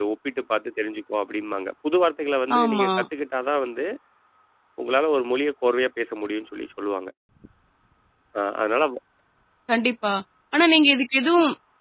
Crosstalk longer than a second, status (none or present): none